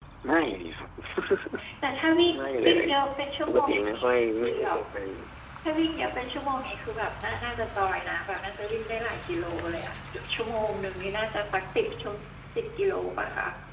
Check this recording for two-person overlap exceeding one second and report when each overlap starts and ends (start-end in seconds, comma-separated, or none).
3.5-4.8